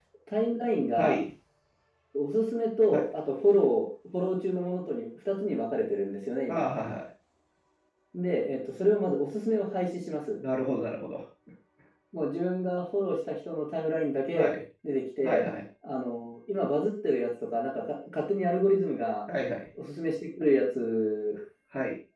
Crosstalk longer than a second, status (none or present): none